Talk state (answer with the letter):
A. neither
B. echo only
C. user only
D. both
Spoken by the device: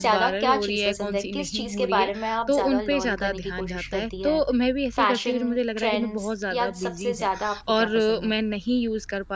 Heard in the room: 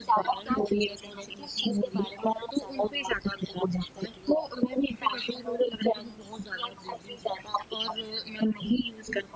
B